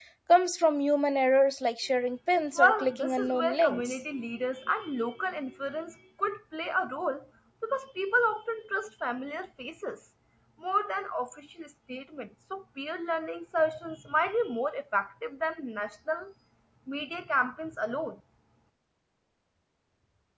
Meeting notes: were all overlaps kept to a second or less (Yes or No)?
No